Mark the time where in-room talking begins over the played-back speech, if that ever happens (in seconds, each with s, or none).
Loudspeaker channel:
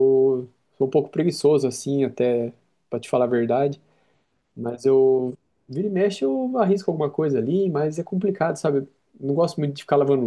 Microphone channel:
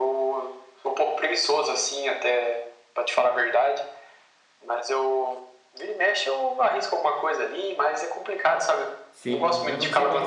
9.1 s